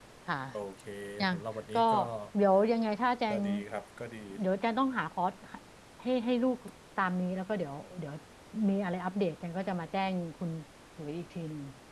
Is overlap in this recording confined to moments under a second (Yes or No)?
Yes